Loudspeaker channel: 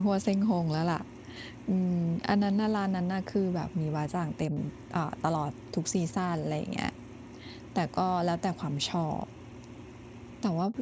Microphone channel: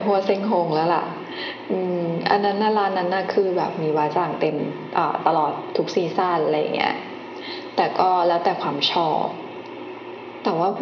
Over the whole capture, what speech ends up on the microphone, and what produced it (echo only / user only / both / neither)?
echo only